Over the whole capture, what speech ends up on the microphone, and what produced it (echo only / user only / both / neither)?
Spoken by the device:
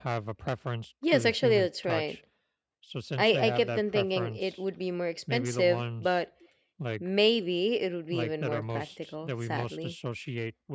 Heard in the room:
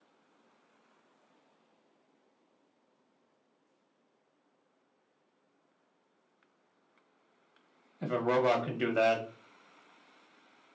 user only